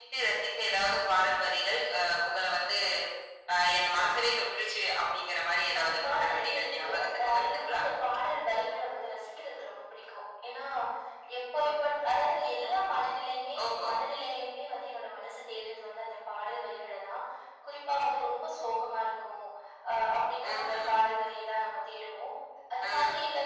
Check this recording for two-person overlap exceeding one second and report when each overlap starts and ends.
5.7-7.8

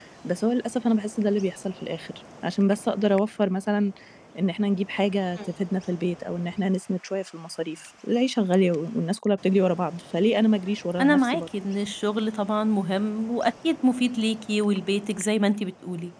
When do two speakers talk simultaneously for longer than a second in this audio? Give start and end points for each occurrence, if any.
none

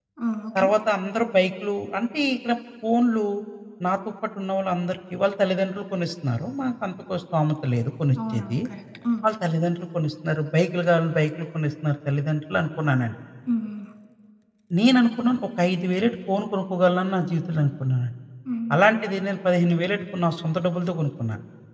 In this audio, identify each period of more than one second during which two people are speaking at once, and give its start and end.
none

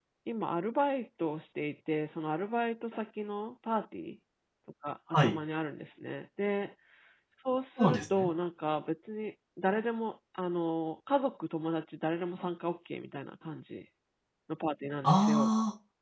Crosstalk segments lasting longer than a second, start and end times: none

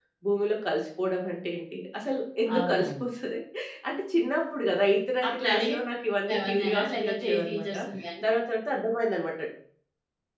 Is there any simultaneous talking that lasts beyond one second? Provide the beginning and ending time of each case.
6.4-7.7

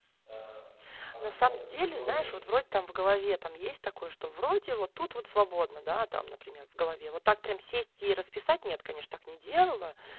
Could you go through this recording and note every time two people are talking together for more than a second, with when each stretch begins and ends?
1.2-2.5

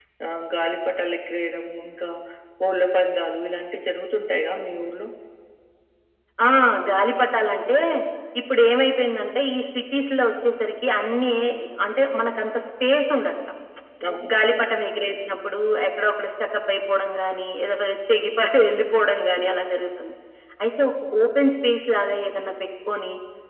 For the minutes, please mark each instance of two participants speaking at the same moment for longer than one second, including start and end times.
none

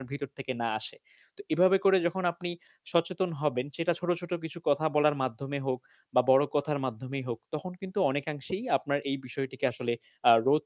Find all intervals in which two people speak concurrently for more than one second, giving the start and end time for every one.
none

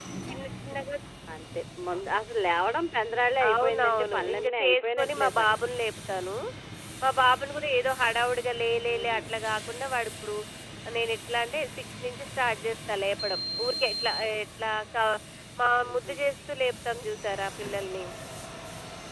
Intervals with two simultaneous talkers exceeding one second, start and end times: 3.5-5.6

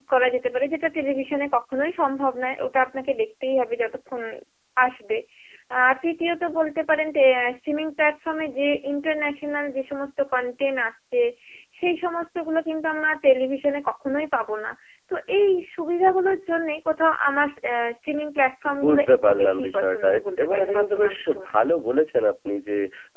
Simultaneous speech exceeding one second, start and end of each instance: 18.8-21.5

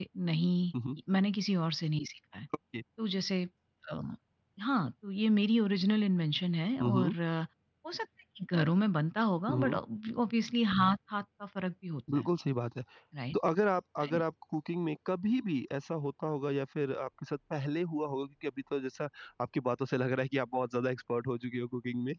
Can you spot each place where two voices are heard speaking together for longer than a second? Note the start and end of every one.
none

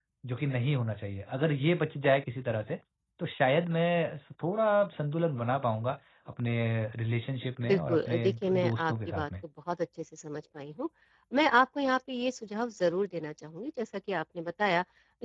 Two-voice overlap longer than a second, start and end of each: 7.7-9.3

